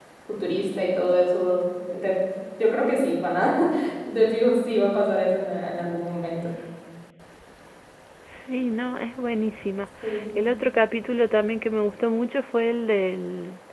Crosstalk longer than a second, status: none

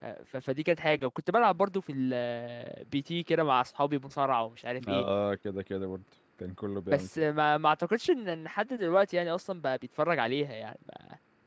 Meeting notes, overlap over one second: none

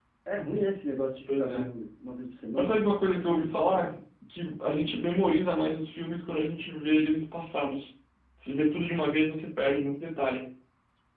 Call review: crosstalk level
present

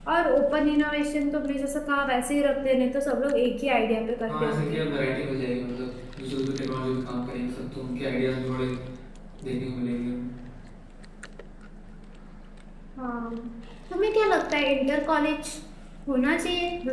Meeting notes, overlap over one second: none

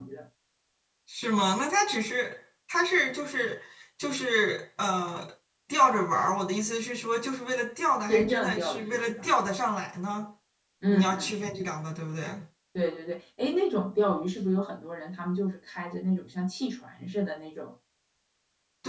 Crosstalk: present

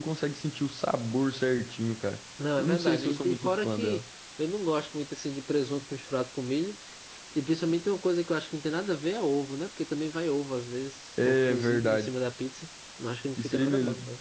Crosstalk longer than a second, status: present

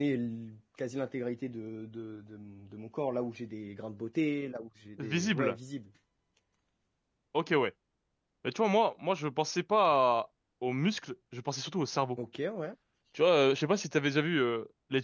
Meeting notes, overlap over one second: none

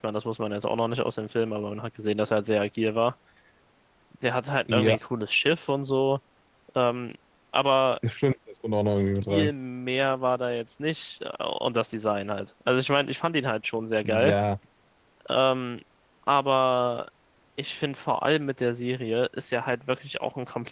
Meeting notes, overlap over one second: none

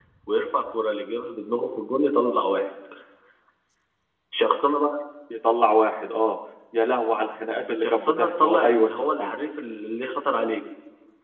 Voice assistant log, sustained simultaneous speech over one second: present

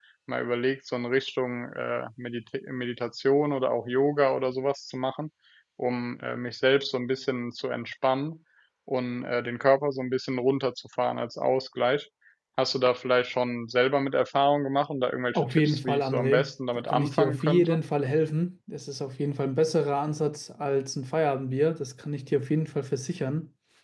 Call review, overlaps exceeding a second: present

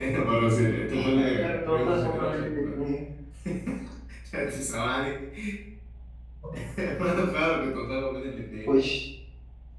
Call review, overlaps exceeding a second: present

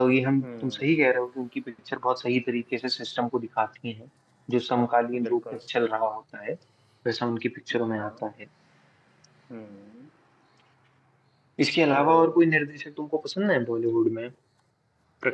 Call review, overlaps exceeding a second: none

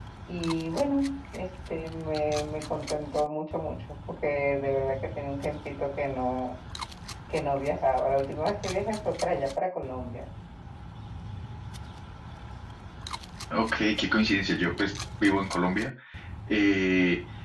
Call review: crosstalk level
none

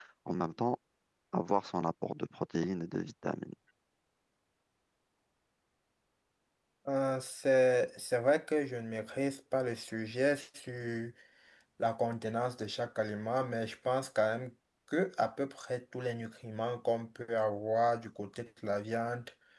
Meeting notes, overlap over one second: none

